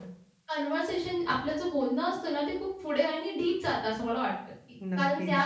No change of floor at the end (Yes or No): Yes